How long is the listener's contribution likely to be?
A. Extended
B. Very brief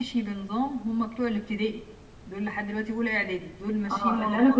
A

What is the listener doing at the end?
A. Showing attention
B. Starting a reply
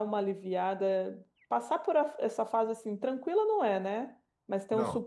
A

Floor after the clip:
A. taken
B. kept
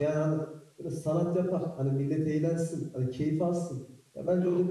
B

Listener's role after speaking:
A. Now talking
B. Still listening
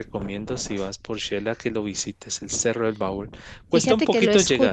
A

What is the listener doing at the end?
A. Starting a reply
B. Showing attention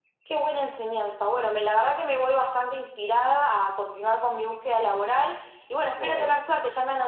B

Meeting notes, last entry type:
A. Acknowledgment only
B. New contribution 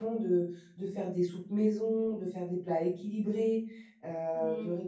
B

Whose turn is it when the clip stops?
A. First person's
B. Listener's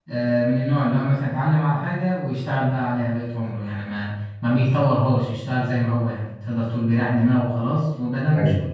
A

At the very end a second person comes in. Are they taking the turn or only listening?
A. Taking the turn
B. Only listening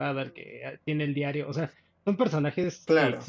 B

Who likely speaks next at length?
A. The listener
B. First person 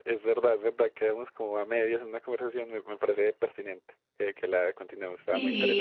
A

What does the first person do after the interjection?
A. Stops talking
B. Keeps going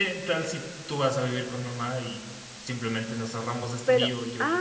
A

